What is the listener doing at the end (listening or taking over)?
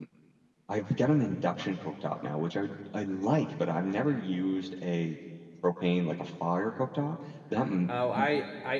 taking over